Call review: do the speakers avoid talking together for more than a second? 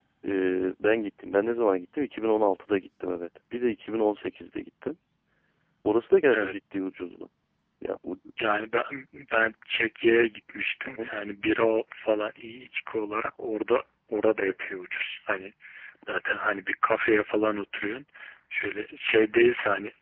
Yes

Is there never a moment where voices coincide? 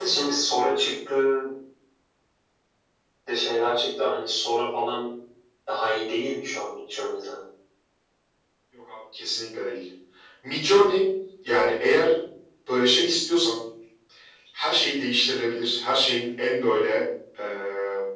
Yes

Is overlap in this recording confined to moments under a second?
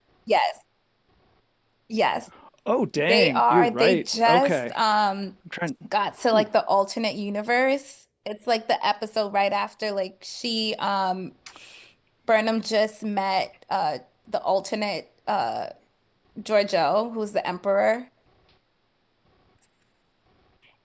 No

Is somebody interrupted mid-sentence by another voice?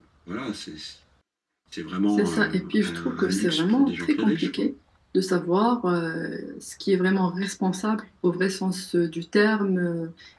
Yes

